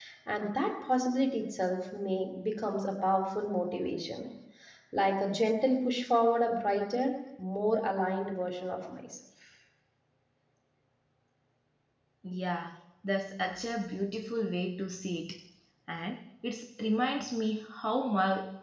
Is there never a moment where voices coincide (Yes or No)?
Yes